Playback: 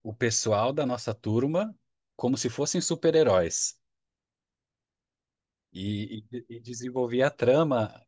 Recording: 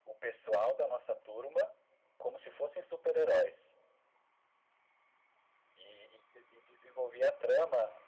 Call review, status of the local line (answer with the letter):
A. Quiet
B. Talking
A